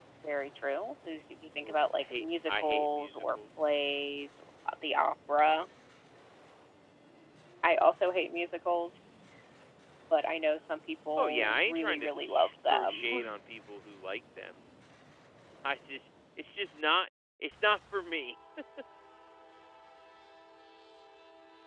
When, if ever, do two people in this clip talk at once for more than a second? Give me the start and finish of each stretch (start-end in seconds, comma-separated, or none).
1.6-3.4, 11.2-13.4